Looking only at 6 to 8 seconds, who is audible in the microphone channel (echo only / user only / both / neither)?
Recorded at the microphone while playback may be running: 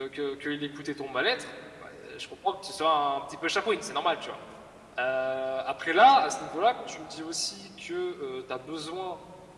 user only